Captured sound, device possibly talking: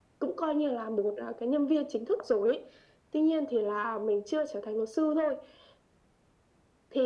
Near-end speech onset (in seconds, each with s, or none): none